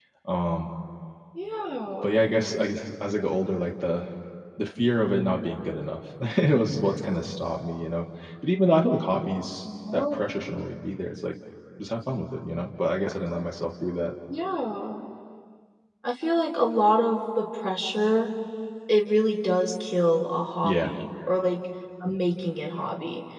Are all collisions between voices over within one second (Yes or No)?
Yes